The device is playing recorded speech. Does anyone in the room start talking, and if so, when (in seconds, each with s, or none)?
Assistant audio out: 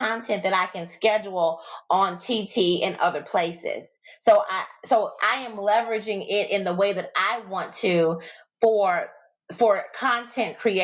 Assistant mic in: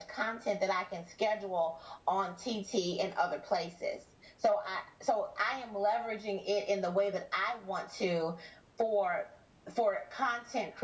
none